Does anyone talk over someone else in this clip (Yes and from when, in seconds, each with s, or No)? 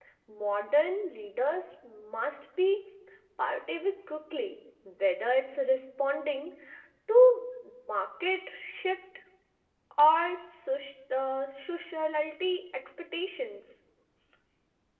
No